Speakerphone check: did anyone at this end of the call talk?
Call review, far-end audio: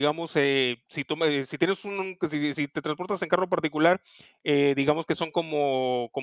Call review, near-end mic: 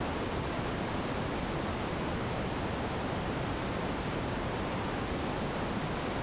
No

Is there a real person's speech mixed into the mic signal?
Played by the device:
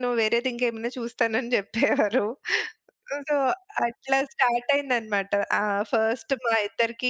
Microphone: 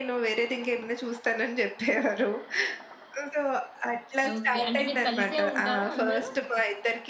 Yes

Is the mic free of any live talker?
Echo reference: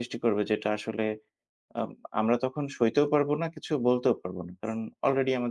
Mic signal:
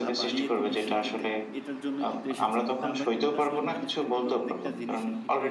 No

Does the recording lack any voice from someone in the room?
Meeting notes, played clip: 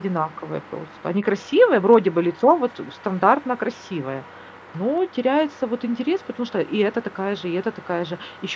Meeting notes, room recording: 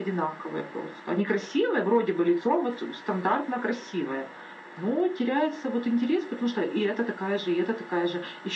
Yes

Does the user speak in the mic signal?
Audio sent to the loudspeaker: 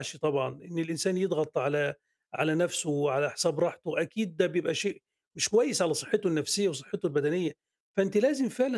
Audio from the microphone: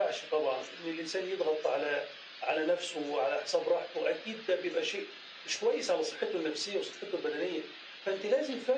No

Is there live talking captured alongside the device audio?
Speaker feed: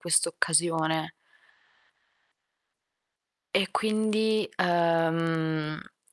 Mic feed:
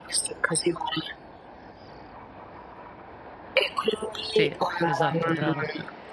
Yes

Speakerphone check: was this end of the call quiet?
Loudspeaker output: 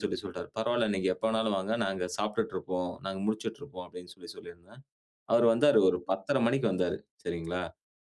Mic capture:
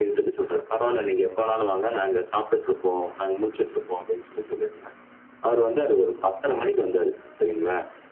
Yes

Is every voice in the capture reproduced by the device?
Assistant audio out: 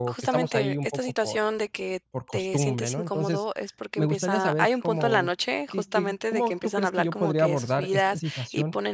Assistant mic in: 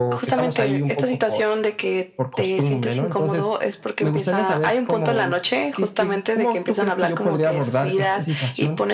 Yes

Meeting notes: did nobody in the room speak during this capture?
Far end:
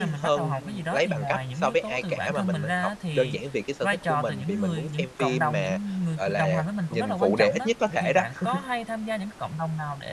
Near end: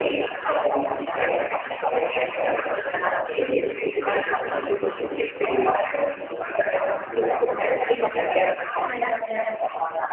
Yes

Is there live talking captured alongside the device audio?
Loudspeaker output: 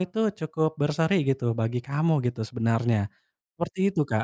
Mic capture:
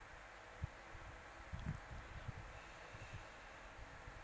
No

